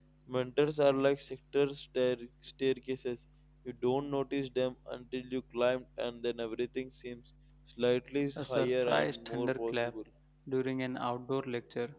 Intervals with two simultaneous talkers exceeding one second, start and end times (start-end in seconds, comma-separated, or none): 8.4-9.9